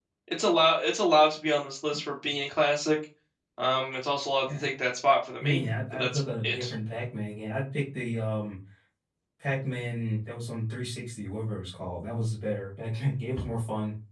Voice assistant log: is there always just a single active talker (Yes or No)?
No